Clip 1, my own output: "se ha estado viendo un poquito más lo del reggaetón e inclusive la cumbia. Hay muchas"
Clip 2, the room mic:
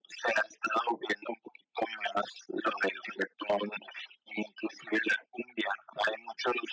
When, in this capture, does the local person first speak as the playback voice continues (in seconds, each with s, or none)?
none